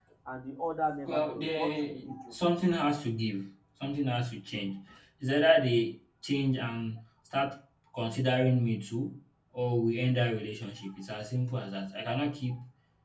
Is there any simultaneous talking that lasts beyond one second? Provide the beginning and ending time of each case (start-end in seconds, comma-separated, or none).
1.1-2.4